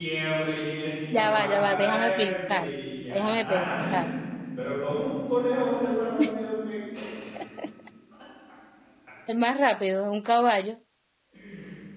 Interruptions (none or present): present